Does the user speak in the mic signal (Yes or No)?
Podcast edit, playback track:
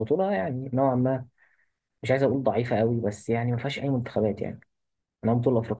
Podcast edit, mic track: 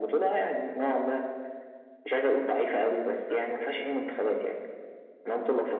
Yes